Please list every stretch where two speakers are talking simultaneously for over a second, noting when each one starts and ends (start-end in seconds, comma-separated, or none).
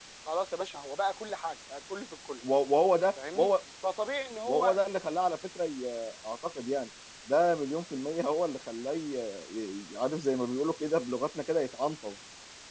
none